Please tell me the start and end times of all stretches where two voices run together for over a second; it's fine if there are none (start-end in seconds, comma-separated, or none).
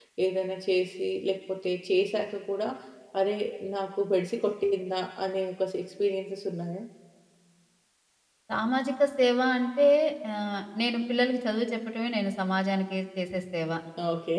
none